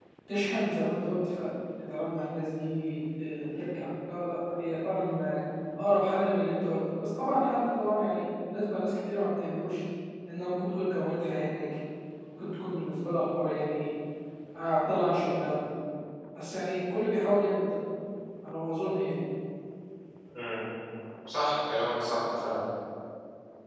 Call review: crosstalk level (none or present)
none